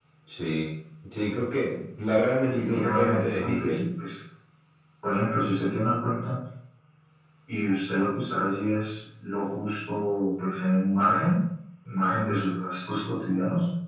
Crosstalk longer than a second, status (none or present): present